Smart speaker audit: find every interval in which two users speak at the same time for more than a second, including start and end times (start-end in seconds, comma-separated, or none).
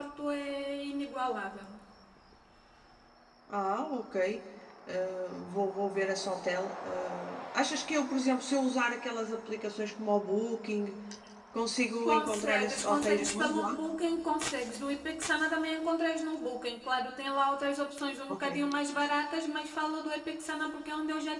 12.0-13.7